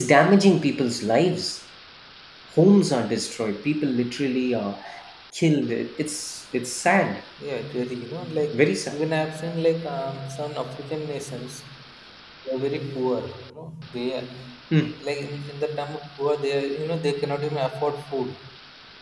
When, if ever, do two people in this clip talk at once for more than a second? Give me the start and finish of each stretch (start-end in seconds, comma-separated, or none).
none